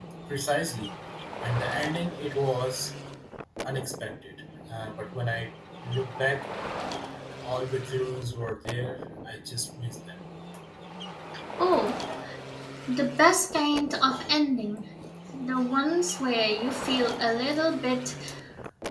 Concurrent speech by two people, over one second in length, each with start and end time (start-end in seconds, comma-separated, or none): none